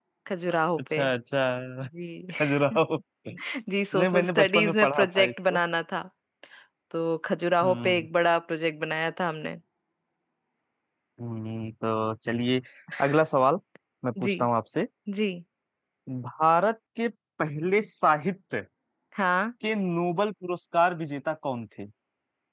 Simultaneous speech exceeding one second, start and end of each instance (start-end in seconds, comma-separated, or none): 3.9-5.6